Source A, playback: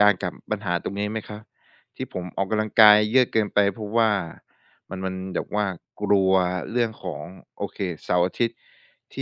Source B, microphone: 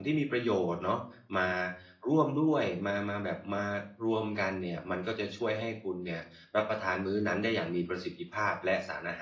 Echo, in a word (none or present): none